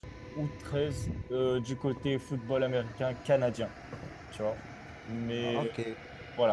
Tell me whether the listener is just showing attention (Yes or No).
Yes